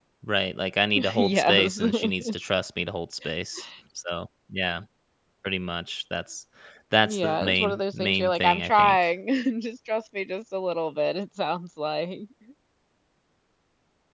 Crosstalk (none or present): present